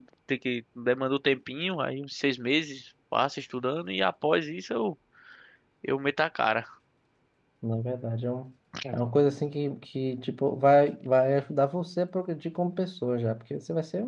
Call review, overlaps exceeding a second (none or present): none